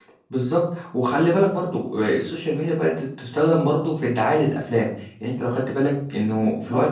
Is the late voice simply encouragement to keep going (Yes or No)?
Yes